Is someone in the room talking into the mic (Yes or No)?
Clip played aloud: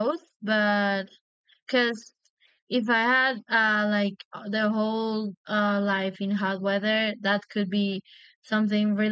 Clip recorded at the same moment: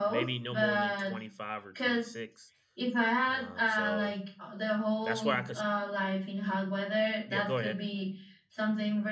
Yes